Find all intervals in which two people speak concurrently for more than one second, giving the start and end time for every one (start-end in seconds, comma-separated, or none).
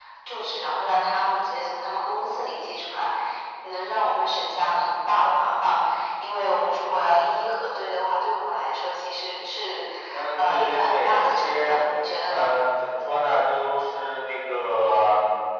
10.4-11.8